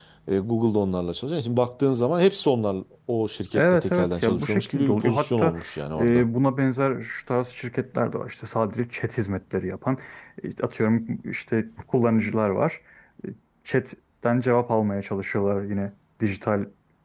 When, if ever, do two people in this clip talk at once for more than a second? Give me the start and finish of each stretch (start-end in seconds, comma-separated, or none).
3.5-5.5